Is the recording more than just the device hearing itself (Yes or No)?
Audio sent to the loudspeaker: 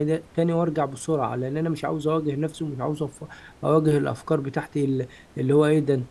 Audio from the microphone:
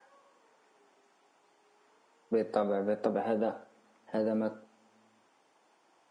Yes